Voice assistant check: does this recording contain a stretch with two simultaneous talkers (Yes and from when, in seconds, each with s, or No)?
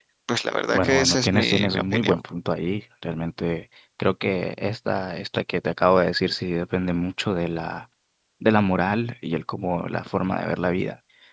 Yes, from 0.7 s